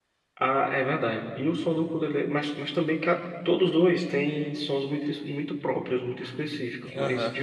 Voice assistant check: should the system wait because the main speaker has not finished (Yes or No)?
Yes